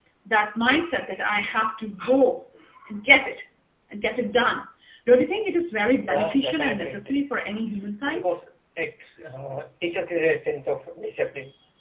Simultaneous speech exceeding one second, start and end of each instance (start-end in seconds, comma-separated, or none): 6.0-7.3